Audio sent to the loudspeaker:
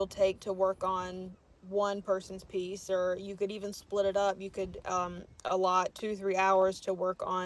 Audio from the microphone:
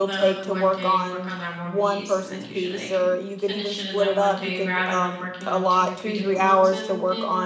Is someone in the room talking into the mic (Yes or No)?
Yes